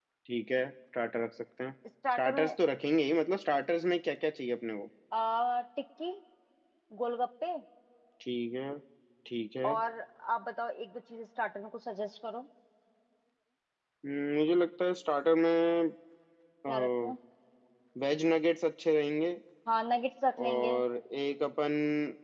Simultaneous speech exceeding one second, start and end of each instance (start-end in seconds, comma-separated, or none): none